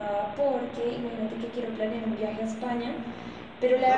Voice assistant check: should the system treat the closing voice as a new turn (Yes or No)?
No